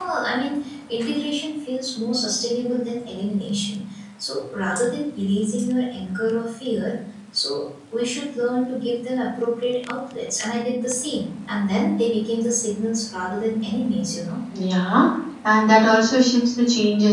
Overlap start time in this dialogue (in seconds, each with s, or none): none